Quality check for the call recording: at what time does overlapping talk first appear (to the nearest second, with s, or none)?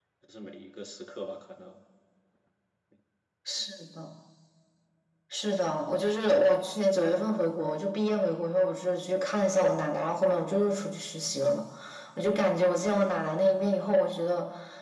none